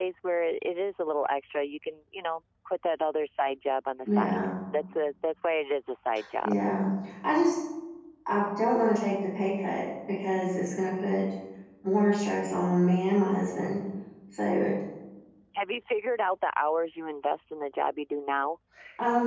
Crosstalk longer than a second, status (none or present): none